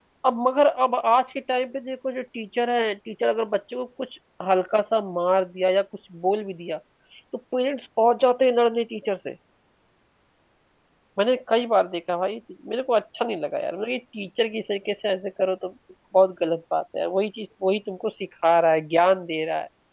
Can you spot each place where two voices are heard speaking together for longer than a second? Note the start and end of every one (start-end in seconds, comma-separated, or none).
none